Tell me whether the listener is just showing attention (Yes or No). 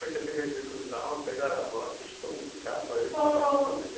Yes